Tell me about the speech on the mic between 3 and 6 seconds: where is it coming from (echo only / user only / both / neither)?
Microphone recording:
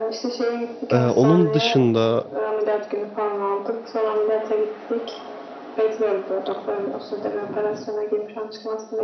echo only